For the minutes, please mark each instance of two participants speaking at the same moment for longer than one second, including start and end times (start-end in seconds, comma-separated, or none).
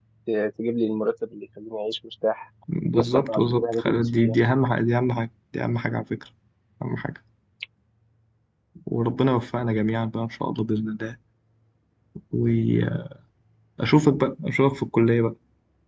3.0-4.4